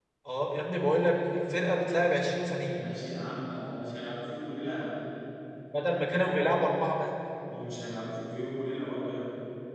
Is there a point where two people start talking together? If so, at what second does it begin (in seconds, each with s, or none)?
none